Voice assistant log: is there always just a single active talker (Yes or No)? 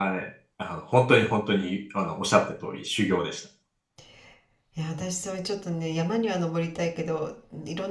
Yes